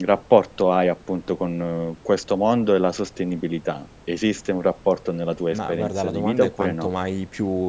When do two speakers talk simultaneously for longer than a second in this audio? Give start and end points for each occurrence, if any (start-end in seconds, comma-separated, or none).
5.5-6.9